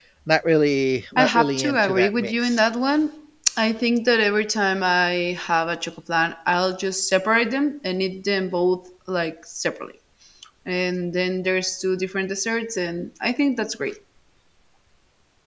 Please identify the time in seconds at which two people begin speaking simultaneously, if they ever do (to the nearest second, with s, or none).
1 s